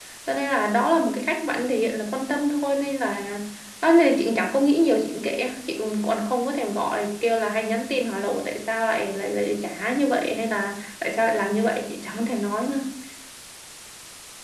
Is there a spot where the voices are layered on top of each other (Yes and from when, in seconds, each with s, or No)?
No